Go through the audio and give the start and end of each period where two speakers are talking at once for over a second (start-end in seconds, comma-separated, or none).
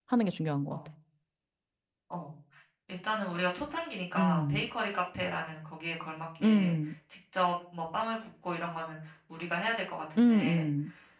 none